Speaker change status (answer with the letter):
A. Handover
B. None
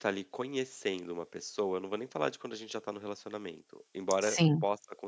B